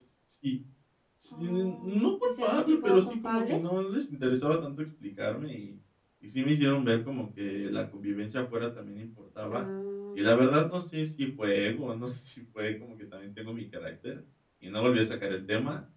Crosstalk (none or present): present